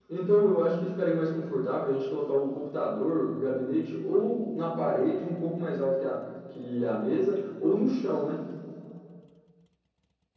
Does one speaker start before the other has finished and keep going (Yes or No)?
No